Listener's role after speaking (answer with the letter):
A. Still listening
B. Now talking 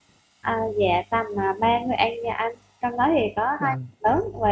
A